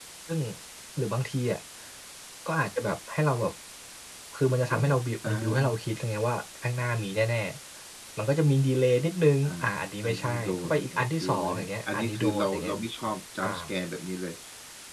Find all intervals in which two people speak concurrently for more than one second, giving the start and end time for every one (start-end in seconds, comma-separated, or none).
10.0-12.7